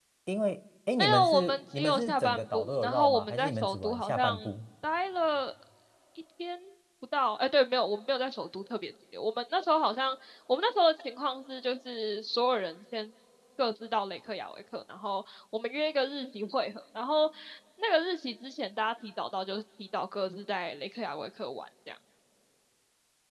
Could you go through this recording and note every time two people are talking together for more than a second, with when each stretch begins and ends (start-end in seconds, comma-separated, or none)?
1.0-4.4